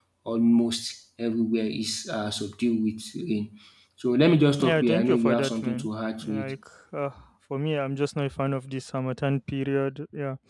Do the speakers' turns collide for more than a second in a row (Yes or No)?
Yes